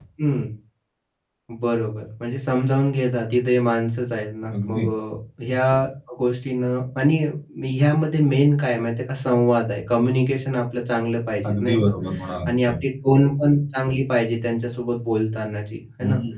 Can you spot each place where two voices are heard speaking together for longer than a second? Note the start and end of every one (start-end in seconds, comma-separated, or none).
none